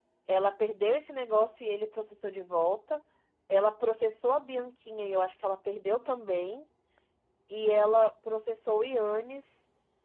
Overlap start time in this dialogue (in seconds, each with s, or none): none